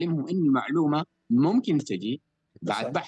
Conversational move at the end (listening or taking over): listening